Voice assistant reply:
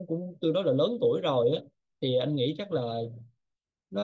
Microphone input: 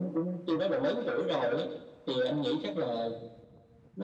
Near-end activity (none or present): none